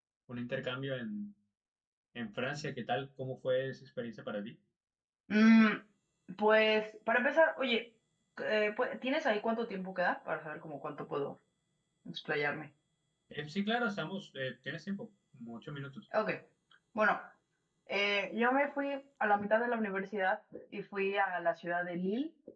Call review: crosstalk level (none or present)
none